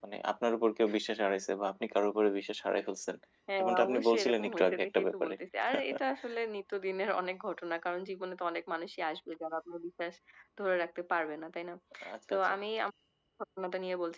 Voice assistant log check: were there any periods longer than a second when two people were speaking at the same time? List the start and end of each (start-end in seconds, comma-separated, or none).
3.6-5.4